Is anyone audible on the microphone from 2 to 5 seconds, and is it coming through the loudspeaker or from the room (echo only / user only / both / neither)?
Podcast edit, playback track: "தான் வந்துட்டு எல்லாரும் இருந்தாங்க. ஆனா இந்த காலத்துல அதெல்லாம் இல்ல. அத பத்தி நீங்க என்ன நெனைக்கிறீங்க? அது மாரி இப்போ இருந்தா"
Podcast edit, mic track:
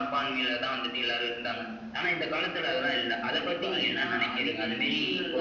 both